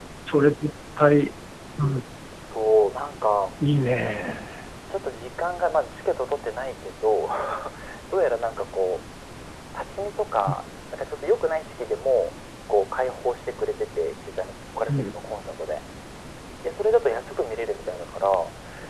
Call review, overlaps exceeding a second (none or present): none